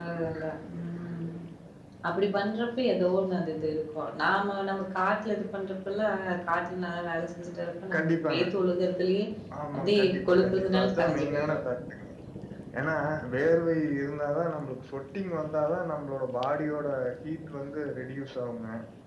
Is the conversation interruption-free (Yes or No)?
No